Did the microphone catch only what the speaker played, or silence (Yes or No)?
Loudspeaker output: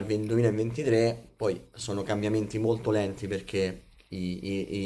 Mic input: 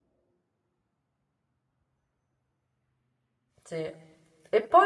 No